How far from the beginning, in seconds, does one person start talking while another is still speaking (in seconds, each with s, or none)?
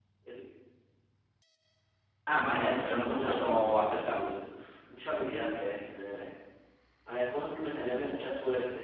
2.4 s